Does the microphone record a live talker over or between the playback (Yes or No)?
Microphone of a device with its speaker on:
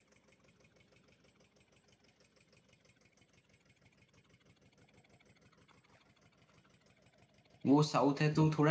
Yes